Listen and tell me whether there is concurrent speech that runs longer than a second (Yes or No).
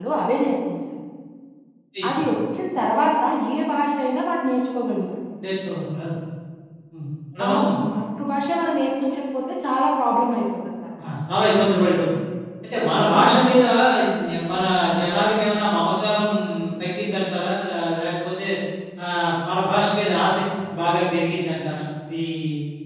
No